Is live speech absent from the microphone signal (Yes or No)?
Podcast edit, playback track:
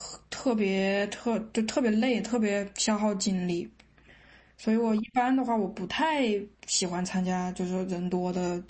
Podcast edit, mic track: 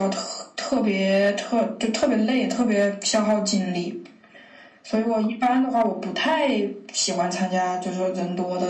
Yes